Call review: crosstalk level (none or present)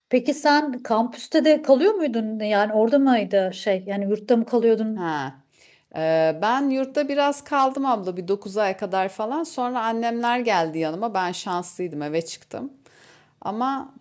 none